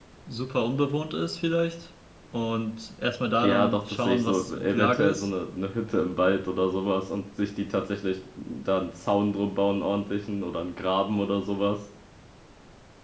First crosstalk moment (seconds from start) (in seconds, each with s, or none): 3.4 s